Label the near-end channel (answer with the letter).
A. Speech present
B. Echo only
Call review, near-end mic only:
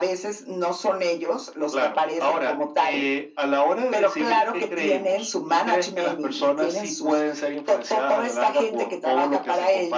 B